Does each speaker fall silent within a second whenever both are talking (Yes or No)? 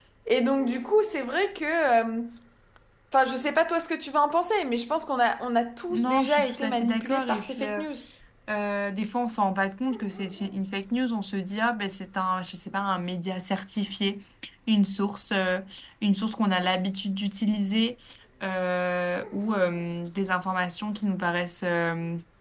No